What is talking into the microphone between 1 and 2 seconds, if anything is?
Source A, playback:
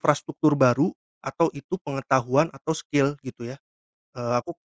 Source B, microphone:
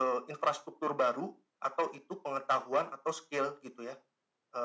echo only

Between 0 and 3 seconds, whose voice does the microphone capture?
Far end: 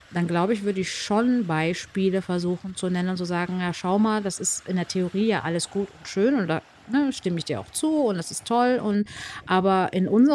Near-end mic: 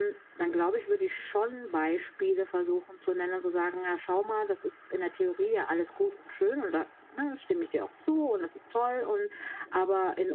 echo only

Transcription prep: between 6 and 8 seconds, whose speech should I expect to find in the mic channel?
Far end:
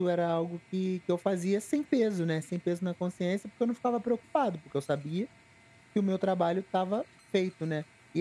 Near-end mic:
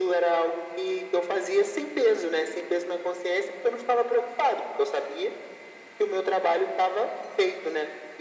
echo only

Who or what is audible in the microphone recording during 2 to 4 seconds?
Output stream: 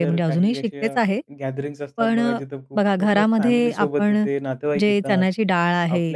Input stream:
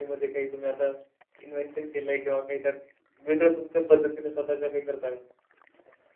user only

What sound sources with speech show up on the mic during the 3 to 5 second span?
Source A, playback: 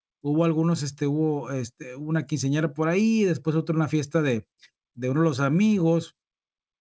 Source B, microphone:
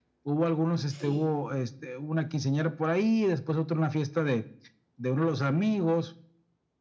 echo only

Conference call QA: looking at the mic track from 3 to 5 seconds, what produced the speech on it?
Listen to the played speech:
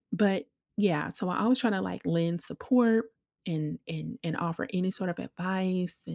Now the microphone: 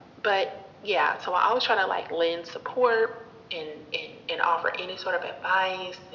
echo only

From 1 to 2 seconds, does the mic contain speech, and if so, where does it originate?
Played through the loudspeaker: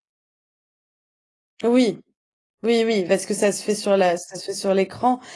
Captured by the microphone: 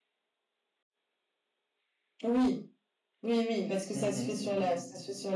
neither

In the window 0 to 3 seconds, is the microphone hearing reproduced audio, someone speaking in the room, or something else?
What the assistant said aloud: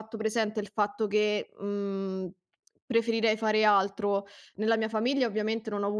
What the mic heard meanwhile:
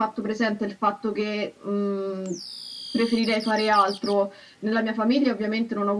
echo only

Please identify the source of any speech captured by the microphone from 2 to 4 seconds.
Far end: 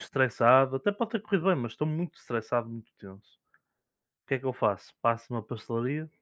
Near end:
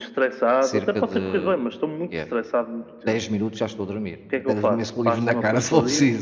both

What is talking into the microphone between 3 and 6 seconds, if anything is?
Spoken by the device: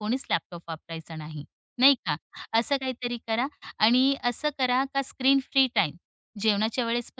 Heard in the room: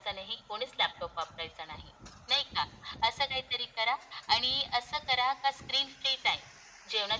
echo only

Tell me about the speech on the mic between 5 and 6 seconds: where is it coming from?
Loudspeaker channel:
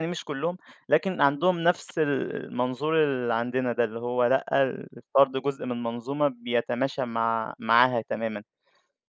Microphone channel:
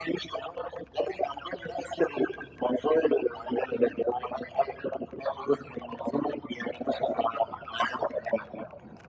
echo only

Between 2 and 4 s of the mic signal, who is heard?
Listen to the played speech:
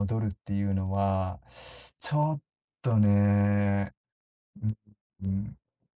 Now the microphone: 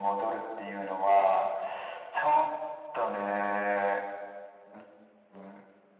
echo only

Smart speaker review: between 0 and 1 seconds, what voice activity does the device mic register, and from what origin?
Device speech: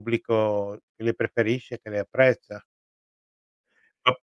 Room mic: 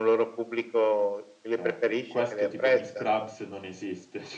echo only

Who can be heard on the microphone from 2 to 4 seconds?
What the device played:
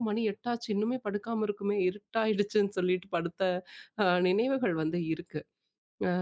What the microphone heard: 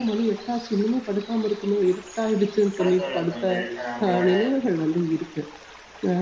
both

